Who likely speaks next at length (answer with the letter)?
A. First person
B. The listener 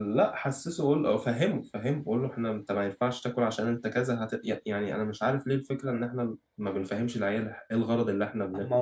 B